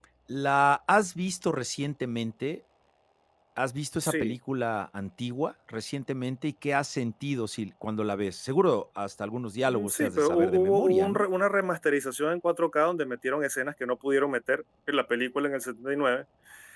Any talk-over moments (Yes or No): Yes